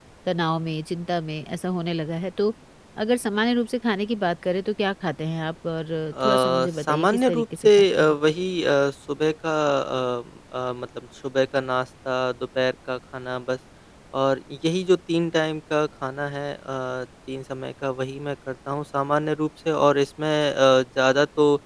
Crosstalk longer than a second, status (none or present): present